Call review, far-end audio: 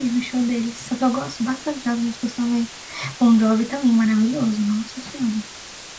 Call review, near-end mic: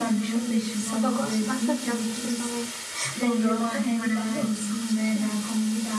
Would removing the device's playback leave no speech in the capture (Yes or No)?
No